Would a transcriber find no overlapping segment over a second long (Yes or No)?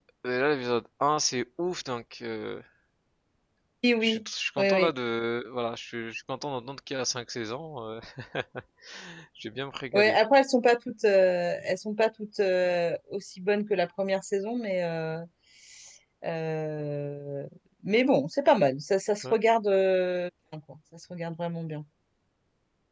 Yes